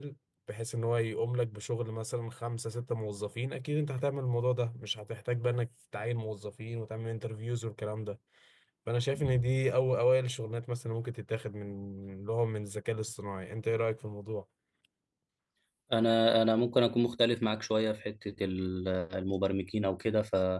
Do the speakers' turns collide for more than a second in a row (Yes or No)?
No